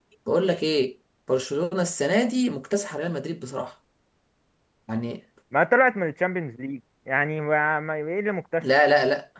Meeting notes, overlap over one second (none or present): none